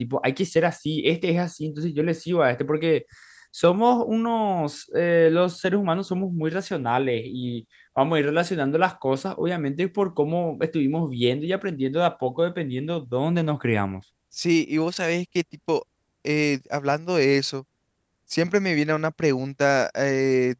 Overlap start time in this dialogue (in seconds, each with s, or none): none